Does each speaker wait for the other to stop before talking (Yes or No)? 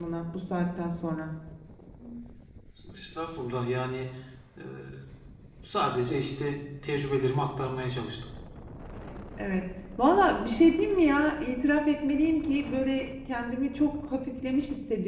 Yes